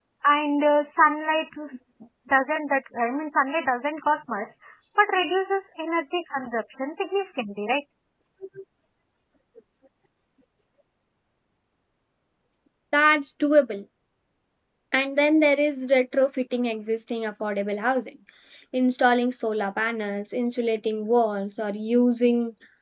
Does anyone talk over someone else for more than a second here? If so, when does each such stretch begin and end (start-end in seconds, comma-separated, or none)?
none